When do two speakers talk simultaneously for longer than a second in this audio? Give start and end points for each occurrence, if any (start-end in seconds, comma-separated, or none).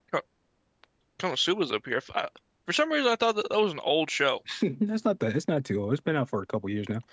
none